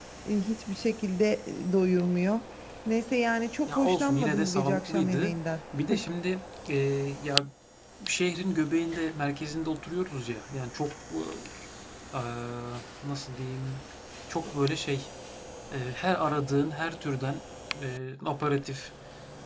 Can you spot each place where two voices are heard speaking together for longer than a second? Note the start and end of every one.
3.7-5.3

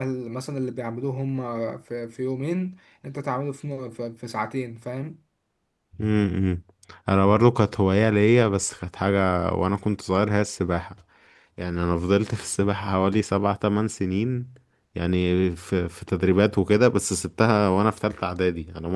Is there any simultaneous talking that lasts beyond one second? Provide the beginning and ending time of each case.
none

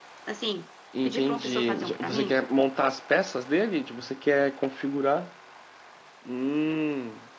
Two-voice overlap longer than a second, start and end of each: 1.1-2.3

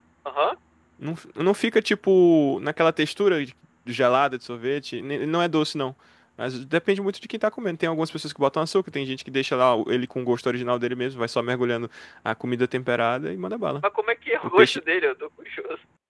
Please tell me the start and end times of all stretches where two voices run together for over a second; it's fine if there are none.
none

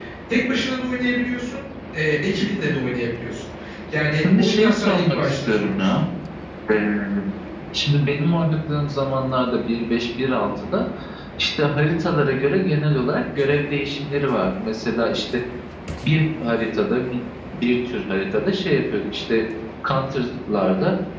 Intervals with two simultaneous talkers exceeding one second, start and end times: 4.2-5.9

